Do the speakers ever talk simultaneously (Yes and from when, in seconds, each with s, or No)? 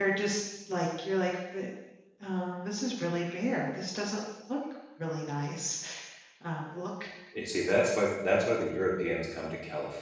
No